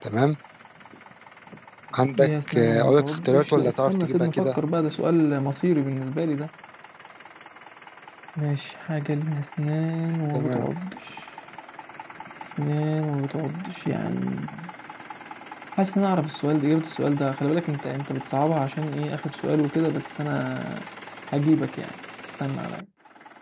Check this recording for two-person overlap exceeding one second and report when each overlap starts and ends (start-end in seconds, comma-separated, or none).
2.1-4.6